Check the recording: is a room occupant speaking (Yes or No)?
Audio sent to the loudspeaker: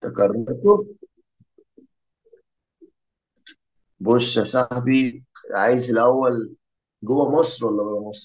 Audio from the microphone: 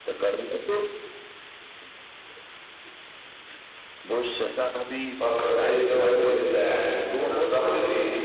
Yes